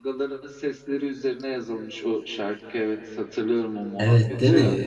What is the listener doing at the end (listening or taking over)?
taking over